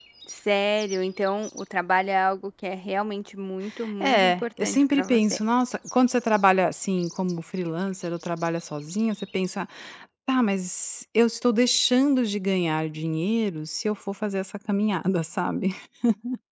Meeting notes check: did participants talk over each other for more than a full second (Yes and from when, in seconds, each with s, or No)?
Yes, from 4.0 s